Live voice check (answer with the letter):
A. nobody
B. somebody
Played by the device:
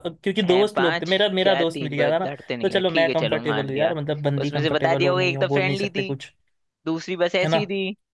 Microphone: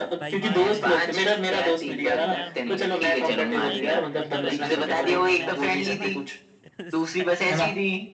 B